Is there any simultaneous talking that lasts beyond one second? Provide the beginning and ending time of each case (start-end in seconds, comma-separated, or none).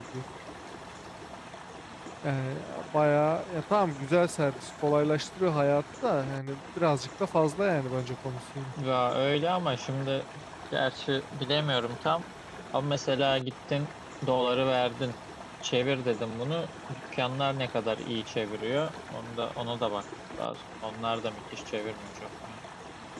none